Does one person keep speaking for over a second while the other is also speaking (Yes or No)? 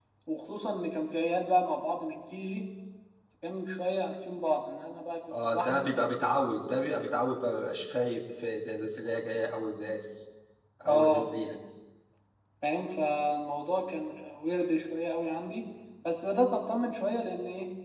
No